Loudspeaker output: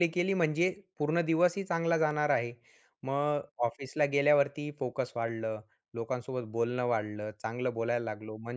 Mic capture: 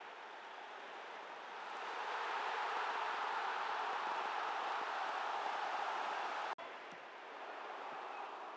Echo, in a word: none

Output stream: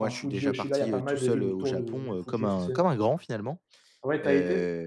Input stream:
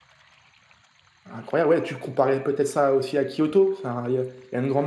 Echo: none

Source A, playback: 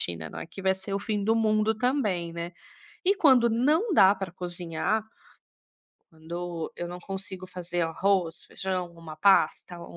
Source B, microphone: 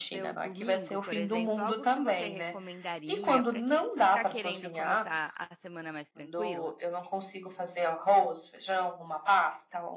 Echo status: present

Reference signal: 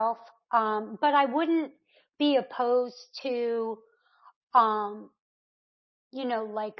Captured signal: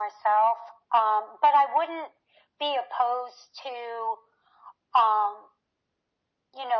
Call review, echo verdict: present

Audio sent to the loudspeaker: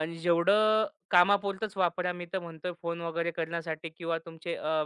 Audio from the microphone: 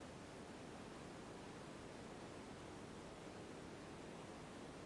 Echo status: none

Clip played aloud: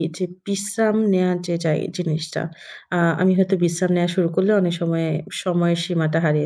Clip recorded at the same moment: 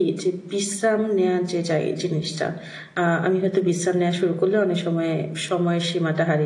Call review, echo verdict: present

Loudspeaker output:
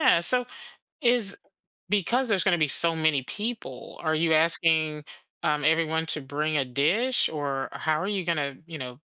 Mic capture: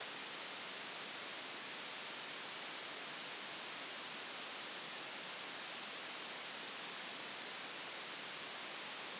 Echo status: none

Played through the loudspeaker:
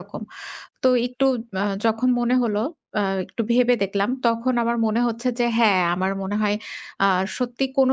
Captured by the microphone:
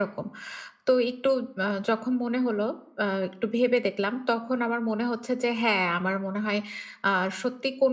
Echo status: present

